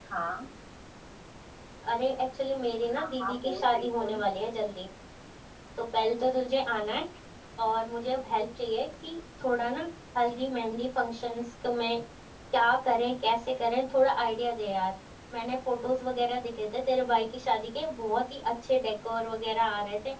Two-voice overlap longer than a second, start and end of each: 3.0-4.2

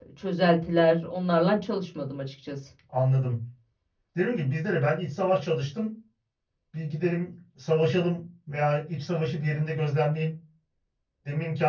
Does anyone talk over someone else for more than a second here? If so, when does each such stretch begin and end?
none

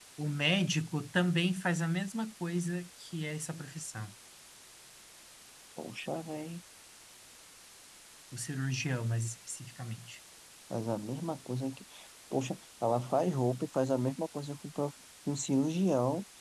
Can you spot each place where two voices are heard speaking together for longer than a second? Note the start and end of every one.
none

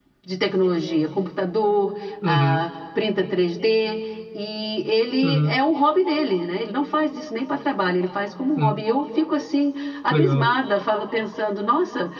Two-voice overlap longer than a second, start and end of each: none

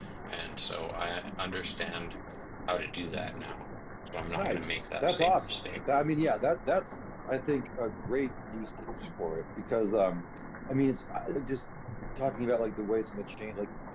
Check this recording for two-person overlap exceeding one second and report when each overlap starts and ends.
4.3-5.5

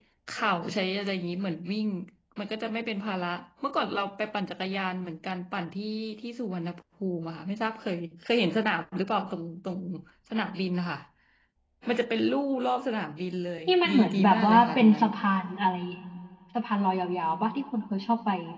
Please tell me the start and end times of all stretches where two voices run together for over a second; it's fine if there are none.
13.7-15.1

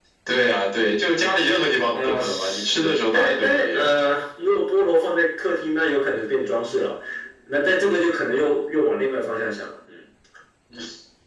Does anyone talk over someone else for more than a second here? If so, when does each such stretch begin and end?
1.9-3.9

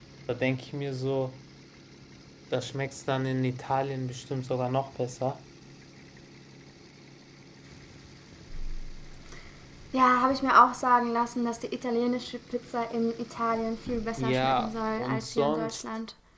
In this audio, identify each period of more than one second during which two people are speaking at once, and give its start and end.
14.2-15.8

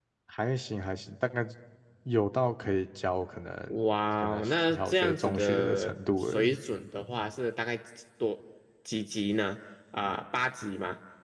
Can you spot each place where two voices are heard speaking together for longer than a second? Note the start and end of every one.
4.2-6.6

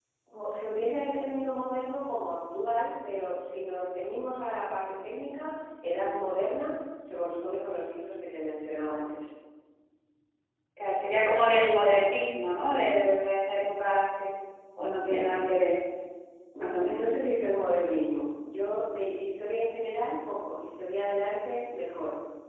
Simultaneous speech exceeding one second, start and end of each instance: none

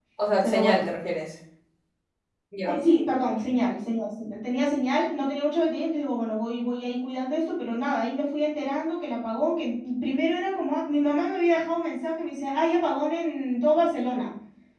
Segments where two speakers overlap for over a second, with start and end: none

